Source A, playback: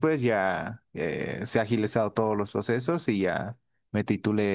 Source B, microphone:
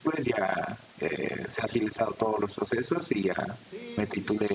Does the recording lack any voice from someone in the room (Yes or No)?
No